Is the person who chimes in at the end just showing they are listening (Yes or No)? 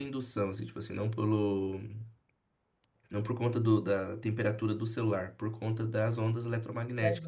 No